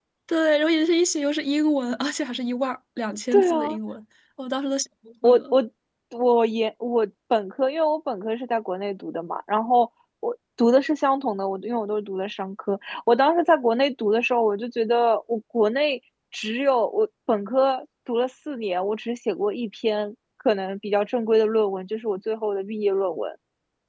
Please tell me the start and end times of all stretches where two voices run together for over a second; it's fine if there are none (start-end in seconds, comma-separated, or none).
none